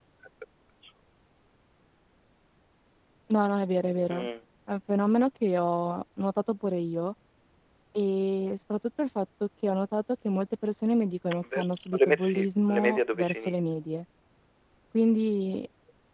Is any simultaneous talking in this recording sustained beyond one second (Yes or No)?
Yes